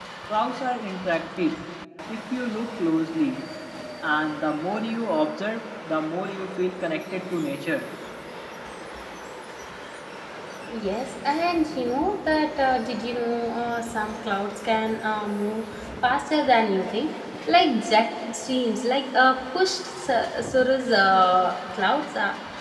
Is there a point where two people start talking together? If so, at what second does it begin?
none

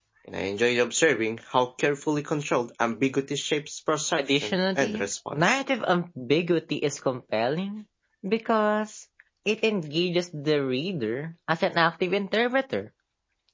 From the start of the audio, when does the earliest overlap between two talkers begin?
4.2 s

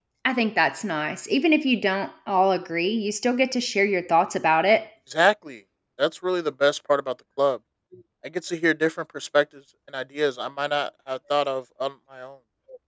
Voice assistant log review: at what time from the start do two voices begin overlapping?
none

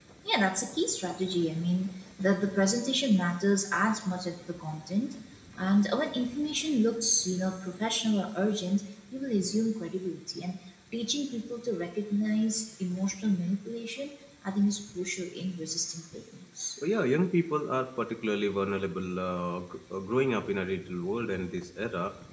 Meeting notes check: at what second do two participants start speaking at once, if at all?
none

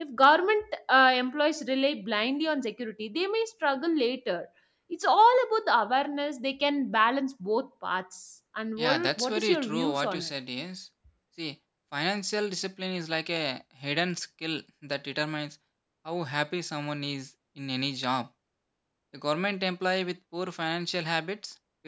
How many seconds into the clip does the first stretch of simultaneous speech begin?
8.8 s

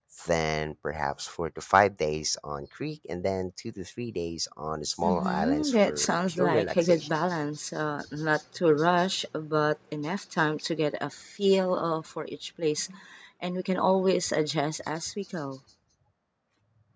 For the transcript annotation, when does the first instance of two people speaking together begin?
5.0 s

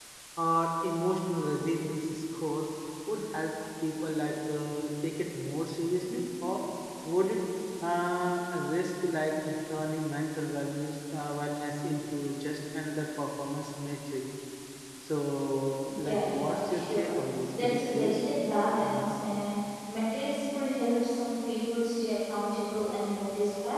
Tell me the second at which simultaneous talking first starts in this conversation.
15.9 s

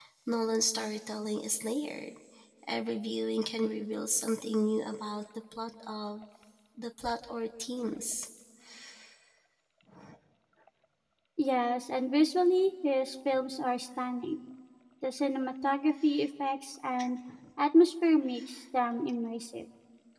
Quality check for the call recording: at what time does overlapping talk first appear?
none

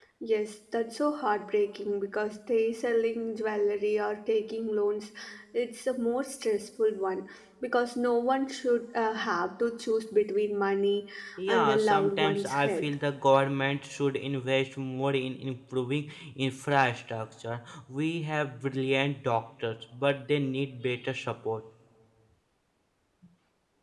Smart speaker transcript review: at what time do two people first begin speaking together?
11.5 s

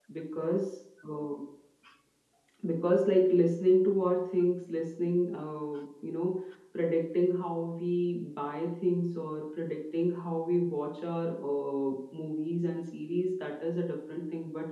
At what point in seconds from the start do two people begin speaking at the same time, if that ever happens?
none

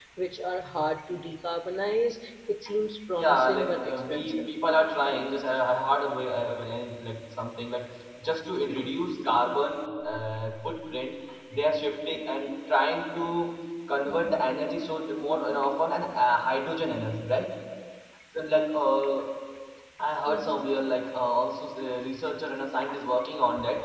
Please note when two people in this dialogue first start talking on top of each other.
3.1 s

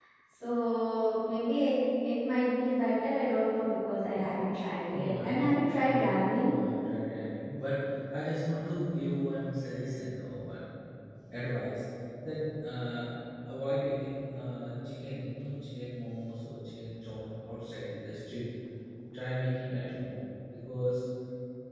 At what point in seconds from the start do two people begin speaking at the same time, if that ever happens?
4.9 s

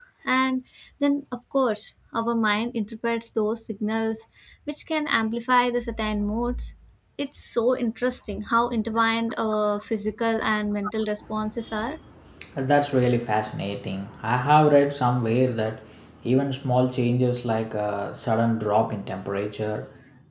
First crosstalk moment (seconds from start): none

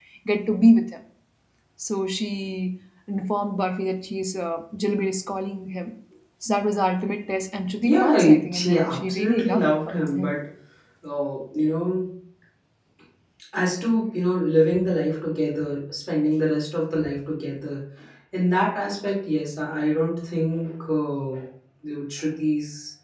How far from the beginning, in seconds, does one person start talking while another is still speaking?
7.8 s

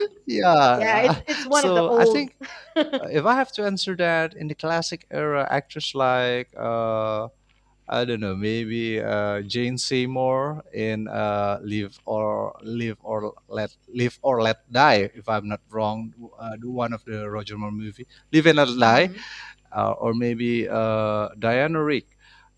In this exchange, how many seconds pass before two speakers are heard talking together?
0.8 s

